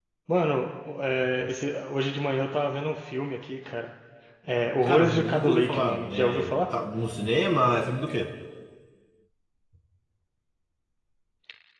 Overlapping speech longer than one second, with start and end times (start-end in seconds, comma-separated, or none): 4.8-6.5